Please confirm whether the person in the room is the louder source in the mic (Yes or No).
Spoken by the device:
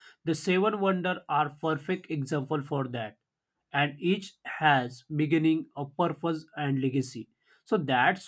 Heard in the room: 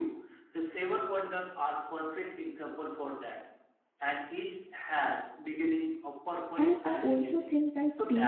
Yes